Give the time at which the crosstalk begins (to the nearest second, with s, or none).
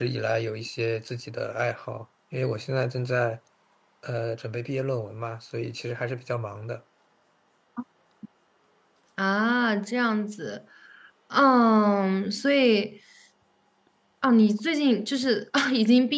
none